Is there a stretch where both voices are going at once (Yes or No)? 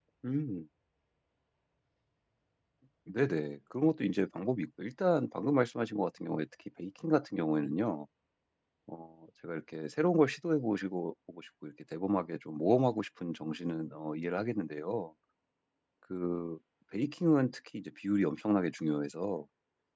No